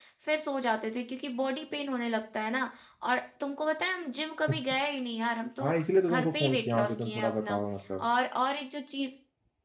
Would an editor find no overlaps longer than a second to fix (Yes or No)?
No